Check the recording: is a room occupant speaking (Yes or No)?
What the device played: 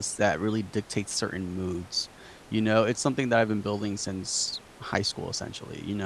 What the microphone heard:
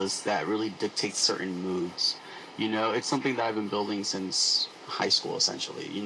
No